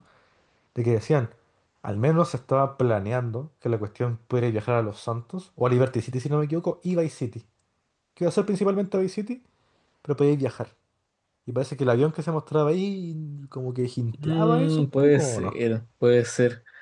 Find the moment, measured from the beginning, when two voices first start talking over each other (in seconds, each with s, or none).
14.1 s